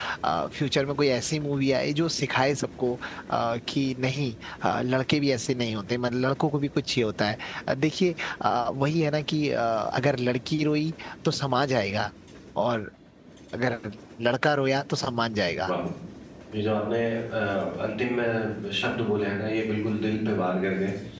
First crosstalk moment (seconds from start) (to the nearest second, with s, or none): none